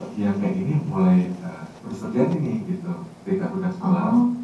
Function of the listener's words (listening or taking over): listening